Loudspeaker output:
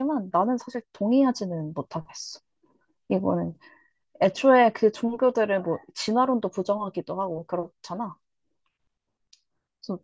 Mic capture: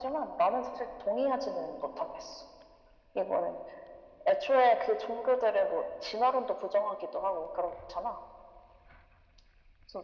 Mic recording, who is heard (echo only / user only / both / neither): echo only